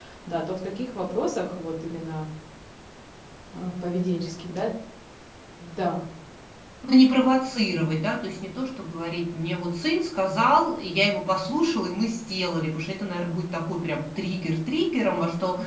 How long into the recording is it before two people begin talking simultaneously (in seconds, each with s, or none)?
none